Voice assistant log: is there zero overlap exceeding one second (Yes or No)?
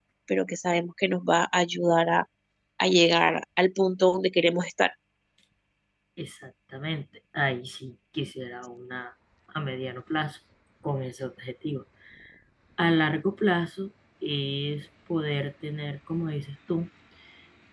Yes